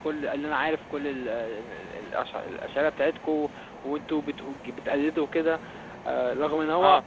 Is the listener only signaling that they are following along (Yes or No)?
Yes